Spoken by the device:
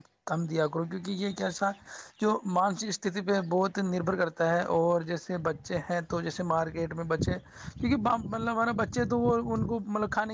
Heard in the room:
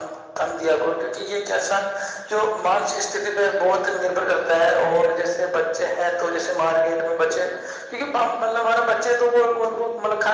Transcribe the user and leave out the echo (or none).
none